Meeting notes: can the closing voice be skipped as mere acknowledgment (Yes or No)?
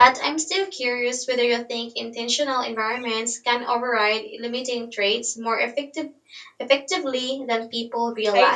No